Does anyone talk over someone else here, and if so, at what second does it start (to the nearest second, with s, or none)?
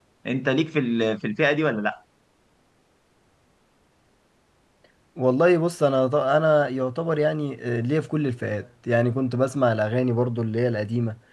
none